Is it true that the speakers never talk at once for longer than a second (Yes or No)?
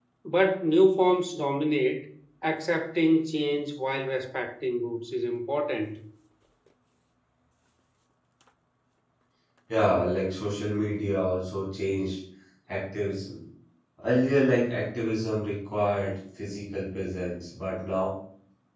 Yes